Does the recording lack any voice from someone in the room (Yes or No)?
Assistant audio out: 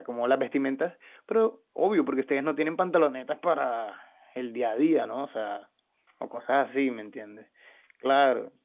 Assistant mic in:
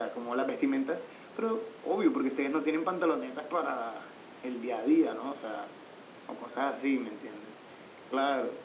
Yes